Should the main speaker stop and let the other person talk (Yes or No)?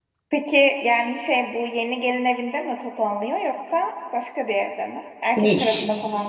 Yes